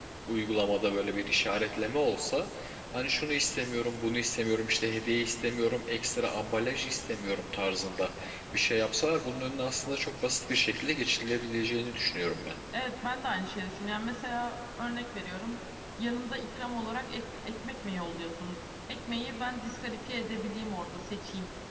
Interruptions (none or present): none